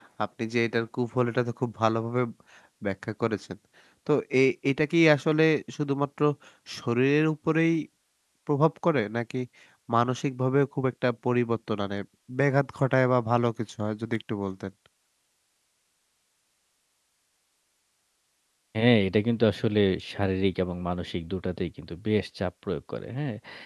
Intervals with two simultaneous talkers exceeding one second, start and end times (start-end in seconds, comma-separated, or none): none